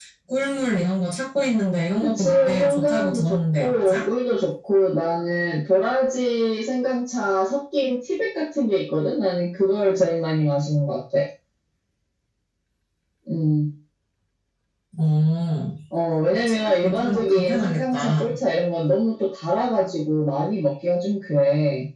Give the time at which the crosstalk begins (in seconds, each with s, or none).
2.0 s